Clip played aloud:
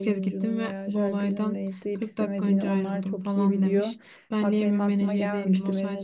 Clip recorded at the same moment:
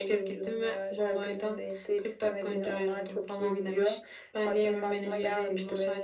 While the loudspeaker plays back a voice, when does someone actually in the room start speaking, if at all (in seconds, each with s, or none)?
none